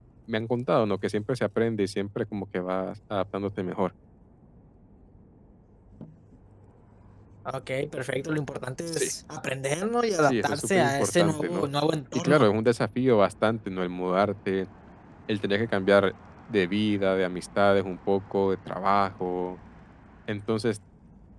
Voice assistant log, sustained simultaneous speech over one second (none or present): present